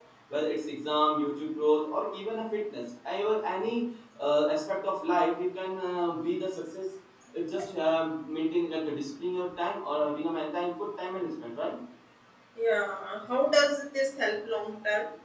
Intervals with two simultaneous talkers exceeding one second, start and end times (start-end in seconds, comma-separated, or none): none